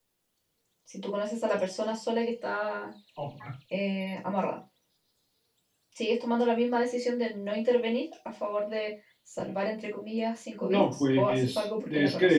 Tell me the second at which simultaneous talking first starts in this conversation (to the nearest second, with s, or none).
11 s